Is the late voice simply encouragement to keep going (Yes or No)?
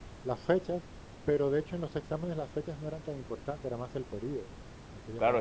No